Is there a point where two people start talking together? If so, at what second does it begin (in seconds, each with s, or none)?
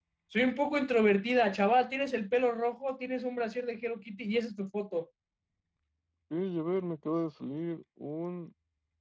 none